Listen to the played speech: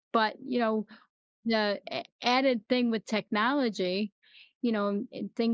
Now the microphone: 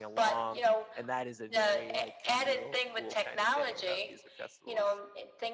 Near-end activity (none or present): present